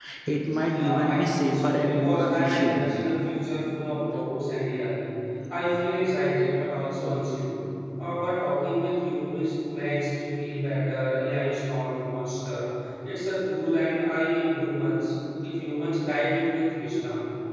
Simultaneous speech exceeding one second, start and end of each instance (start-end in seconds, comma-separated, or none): 0.7-2.8